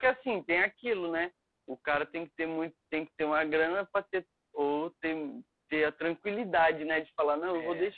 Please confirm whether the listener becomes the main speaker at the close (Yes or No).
No